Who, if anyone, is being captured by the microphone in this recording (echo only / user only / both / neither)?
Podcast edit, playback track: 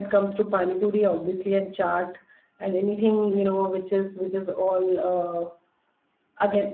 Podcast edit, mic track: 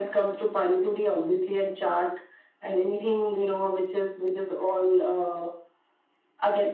echo only